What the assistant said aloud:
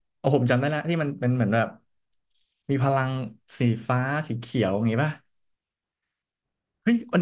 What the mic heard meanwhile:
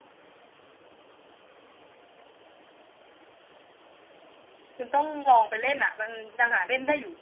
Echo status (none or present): none